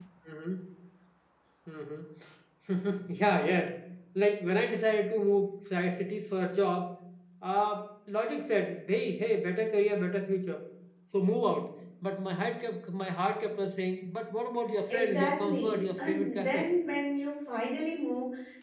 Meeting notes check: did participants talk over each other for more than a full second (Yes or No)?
Yes